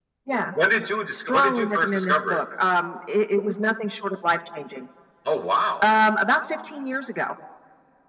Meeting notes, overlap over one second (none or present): present